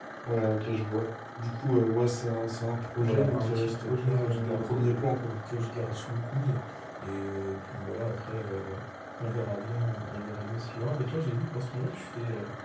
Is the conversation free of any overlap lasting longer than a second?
No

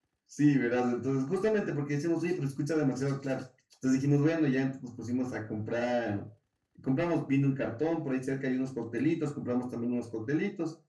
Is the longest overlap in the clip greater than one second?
No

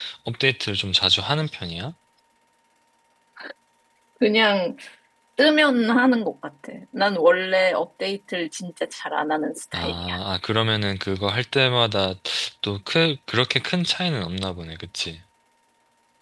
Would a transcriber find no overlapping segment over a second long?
Yes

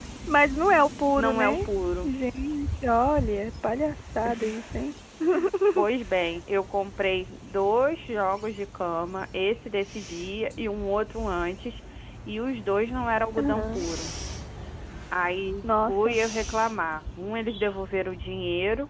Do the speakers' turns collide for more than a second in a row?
No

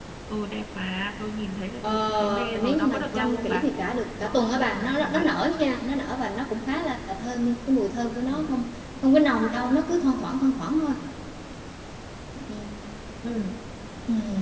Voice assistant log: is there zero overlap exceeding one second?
No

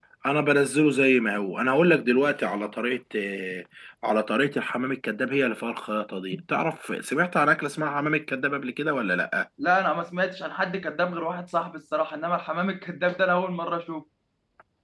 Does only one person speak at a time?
Yes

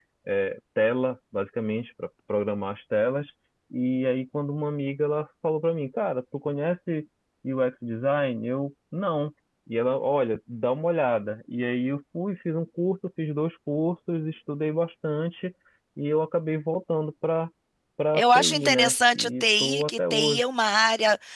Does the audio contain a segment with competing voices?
Yes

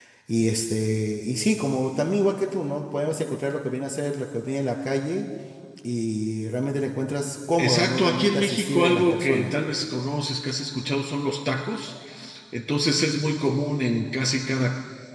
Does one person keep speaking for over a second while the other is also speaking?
Yes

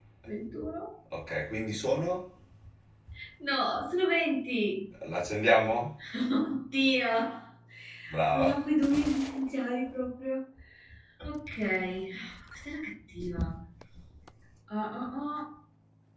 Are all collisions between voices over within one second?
Yes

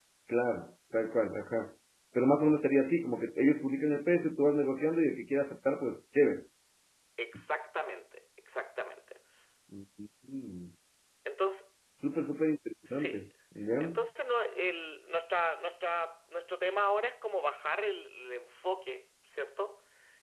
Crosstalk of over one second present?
No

